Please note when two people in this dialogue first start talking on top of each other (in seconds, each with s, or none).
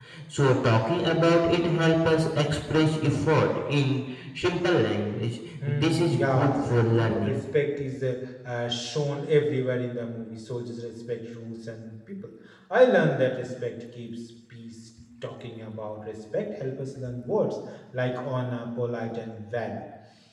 5.6 s